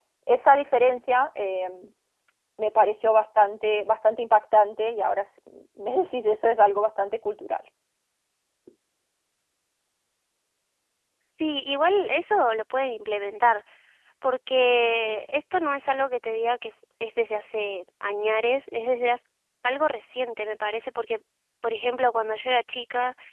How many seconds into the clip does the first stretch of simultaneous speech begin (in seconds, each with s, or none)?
none